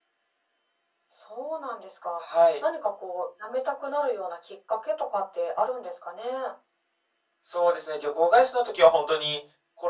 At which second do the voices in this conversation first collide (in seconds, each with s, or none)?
none